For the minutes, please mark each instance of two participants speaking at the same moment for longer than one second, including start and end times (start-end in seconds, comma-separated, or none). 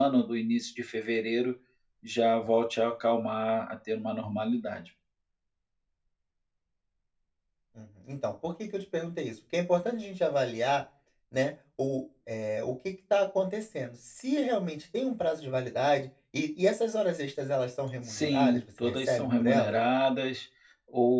18.1-19.8